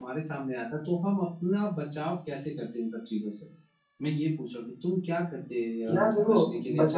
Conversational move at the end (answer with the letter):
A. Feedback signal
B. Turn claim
B